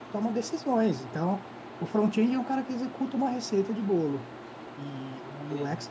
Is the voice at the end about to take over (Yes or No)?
No